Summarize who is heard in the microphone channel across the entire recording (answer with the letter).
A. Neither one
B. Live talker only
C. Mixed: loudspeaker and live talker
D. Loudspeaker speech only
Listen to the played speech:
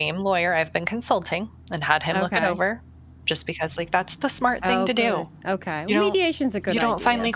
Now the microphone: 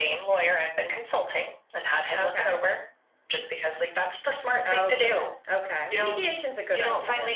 D